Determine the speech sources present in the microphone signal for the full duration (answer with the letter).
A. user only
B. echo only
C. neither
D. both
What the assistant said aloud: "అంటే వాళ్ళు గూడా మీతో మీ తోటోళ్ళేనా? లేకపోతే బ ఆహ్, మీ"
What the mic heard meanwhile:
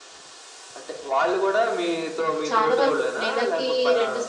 D